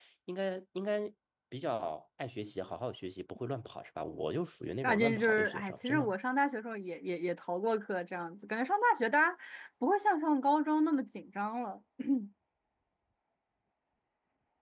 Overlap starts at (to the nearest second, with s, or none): 5 s